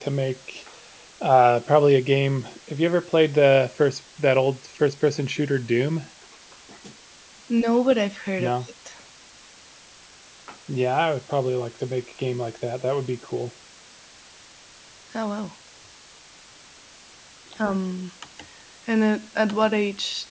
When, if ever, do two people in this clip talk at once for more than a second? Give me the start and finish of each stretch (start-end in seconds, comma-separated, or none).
none